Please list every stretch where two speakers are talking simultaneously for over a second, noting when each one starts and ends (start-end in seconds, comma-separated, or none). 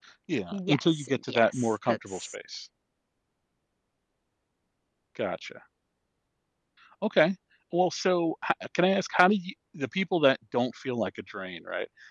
0.5-2.4